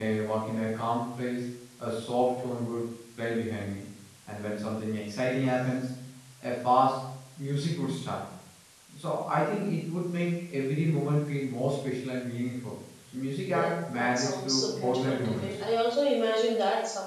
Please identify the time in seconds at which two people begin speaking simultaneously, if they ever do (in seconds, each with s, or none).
13.5 s